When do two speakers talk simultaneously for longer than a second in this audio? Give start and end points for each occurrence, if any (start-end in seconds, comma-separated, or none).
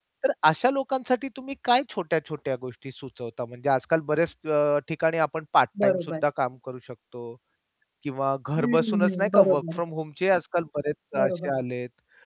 8.6-9.8